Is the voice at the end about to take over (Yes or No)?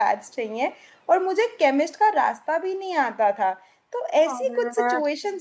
No